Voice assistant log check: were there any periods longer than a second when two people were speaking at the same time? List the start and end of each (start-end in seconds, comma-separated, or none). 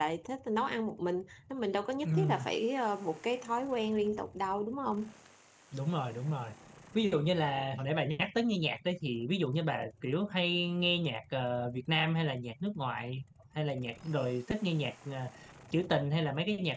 none